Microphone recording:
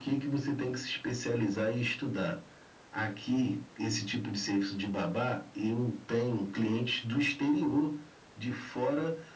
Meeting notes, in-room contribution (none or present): none